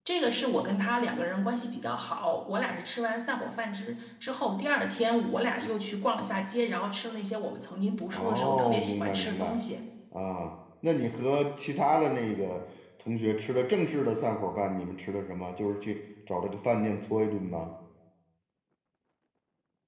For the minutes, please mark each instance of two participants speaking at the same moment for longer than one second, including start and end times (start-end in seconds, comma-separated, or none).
8.1-9.5